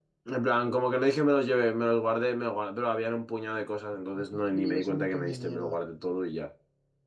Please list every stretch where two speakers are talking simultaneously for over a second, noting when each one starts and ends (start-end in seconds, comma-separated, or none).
4.1-5.8